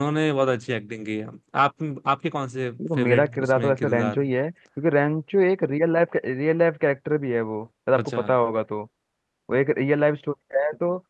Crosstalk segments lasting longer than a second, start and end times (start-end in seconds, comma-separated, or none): 3.0-4.3